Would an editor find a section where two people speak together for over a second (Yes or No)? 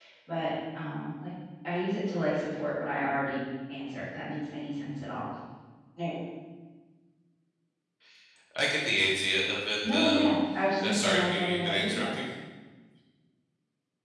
Yes